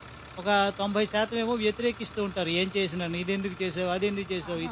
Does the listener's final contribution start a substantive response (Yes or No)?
Yes